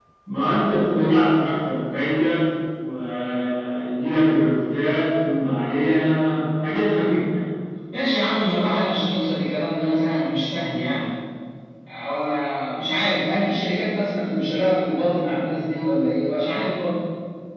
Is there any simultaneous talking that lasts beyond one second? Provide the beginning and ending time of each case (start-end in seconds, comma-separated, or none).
none